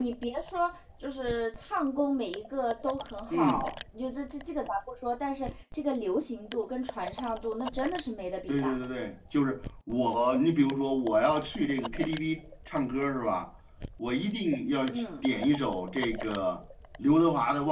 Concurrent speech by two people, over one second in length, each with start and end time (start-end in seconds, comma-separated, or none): none